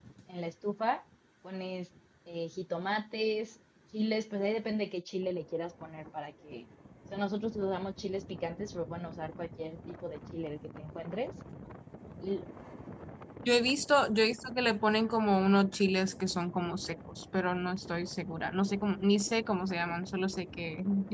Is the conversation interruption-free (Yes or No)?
Yes